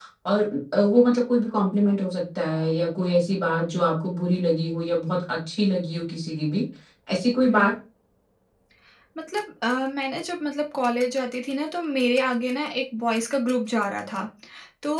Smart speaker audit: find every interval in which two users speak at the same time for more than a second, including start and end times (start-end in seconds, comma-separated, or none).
none